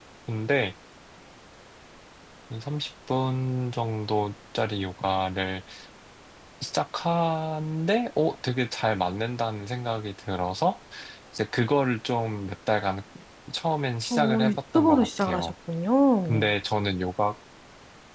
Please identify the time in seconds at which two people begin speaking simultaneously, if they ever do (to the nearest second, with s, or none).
14 s